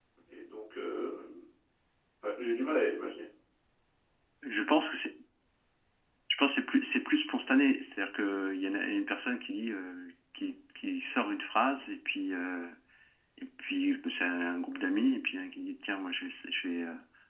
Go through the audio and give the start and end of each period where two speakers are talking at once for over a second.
none

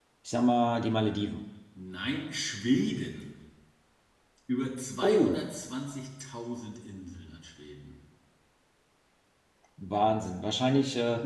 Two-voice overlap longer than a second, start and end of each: none

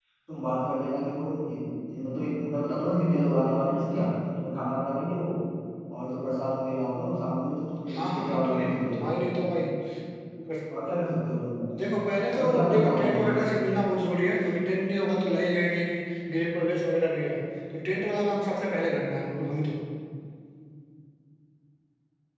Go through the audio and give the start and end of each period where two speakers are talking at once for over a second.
7.9-9.1, 12.4-13.6

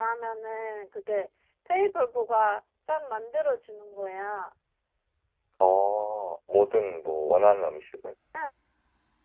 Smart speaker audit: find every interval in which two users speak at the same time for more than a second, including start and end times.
none

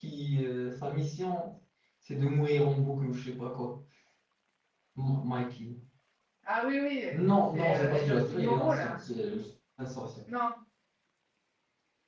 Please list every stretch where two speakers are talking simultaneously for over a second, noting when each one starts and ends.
7.5-9.0

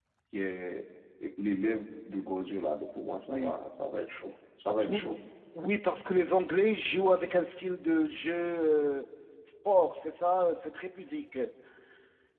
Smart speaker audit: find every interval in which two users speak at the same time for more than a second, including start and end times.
none

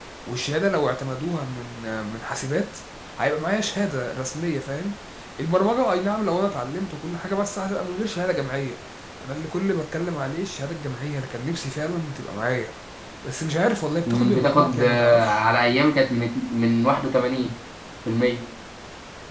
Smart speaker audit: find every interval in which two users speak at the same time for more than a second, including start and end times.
14.1-15.4

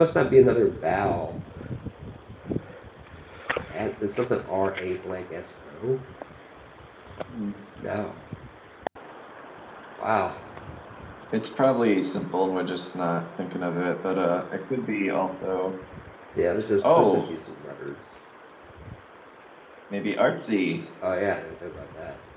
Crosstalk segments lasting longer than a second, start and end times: none

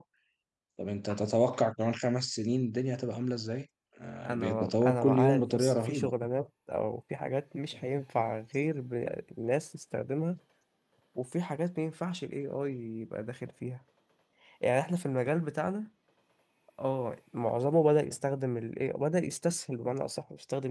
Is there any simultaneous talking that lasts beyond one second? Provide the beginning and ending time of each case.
4.2-6.1

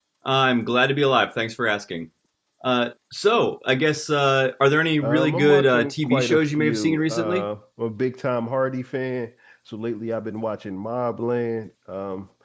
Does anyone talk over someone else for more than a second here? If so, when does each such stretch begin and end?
5.0-7.5

